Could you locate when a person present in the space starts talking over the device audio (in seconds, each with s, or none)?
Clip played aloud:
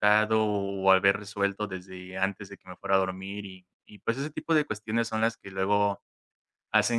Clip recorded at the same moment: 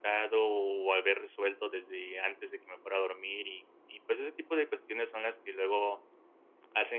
none